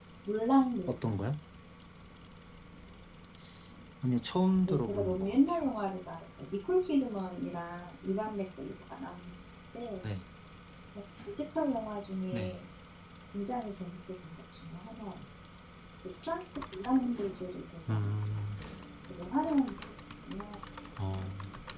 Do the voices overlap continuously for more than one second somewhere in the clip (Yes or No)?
Yes